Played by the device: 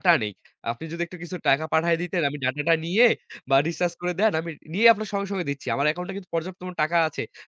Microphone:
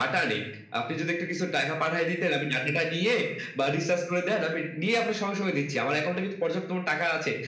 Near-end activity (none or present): none